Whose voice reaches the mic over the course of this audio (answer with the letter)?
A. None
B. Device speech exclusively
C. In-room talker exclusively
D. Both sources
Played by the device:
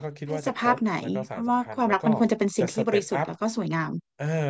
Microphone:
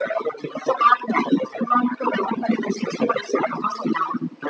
B